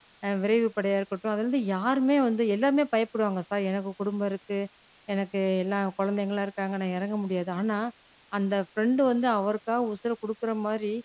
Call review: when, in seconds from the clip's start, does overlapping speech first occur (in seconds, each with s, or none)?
none